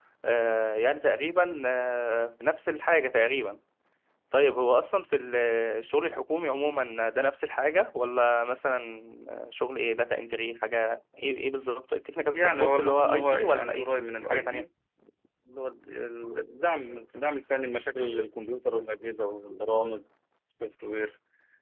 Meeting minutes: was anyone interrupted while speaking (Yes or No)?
Yes